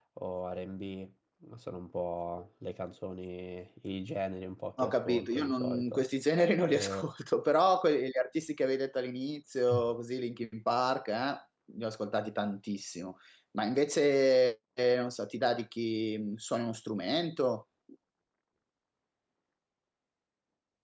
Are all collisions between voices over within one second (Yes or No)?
No